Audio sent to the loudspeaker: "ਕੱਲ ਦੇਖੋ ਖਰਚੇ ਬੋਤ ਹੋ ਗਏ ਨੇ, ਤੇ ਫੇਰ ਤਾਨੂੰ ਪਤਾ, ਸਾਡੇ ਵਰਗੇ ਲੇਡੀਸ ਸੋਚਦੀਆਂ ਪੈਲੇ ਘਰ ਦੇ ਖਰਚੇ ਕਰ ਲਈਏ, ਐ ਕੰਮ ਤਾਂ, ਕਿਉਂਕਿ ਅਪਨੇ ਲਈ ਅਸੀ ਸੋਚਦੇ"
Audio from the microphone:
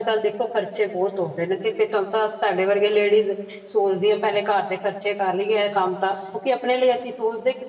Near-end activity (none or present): none